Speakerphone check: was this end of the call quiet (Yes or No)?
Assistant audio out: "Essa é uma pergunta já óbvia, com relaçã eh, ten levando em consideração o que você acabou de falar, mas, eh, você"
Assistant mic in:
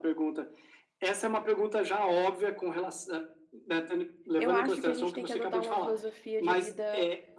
No